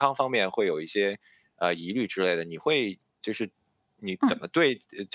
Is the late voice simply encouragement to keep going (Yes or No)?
Yes